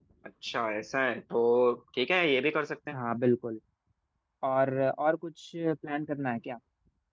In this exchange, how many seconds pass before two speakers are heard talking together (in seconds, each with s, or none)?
none